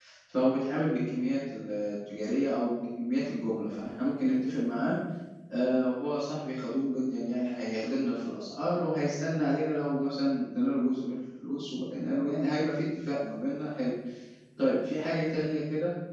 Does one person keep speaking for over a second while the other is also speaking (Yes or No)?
No